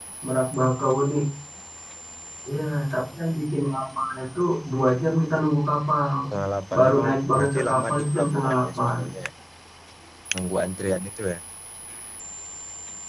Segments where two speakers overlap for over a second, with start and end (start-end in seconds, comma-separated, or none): 6.8-9.0